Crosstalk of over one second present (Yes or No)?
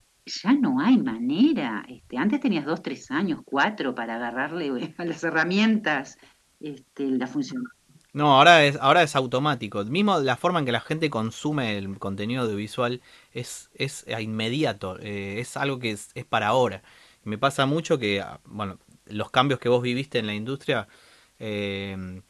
No